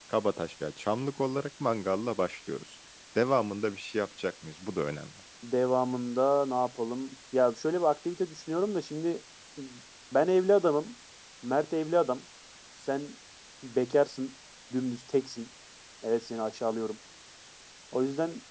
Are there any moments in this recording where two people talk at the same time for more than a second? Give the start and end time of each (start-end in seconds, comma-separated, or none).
none